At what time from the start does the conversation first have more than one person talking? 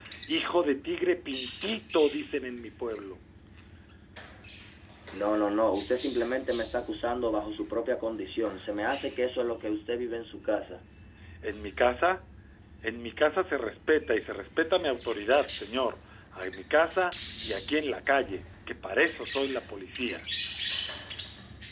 none

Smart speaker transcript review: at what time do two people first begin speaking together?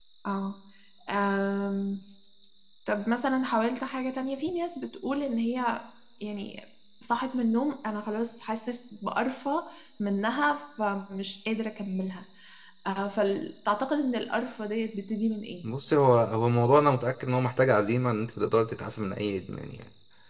none

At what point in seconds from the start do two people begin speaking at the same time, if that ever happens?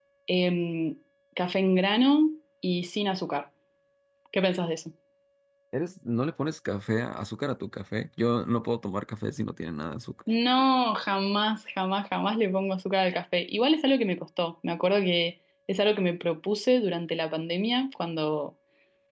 none

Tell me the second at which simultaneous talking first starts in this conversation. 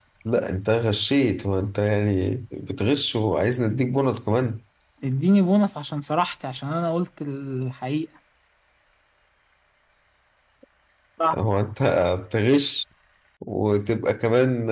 none

